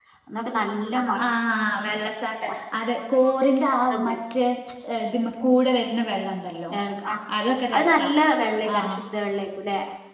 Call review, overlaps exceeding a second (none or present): none